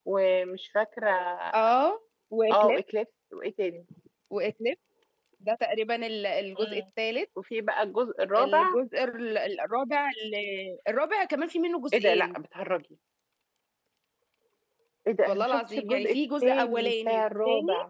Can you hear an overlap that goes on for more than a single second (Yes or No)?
Yes